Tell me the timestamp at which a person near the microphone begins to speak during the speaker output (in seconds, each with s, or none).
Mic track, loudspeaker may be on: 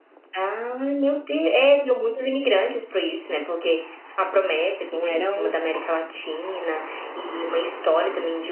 4.8 s